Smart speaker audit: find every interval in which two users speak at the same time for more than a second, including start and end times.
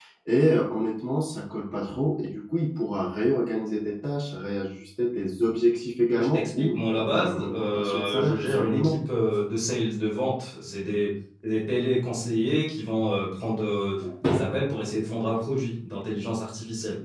6.2-9.0

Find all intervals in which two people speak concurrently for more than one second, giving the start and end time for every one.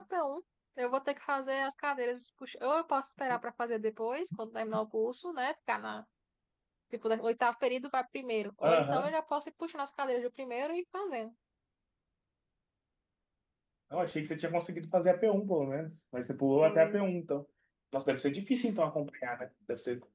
none

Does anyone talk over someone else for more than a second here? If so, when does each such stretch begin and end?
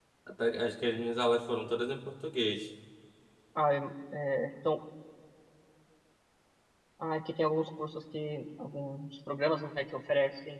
none

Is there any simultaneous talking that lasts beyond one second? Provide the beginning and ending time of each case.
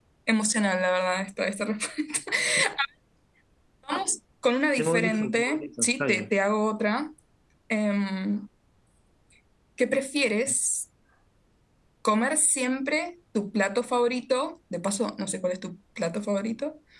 4.8-6.3

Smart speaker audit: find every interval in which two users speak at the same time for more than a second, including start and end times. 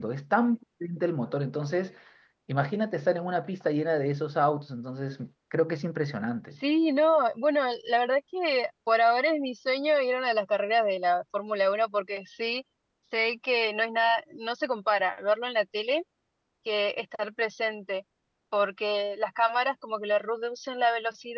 none

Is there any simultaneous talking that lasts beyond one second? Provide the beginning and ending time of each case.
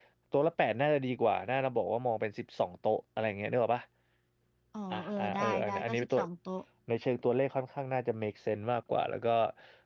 4.9-6.2

